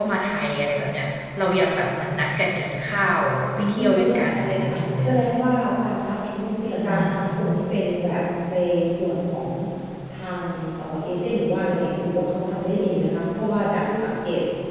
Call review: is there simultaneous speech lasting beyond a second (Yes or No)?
Yes